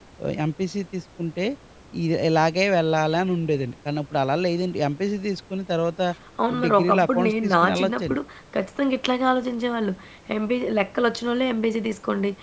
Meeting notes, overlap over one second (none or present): present